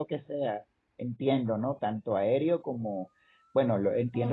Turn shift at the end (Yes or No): No